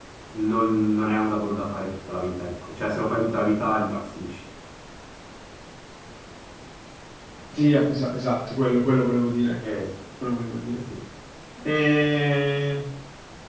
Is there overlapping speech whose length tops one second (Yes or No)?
No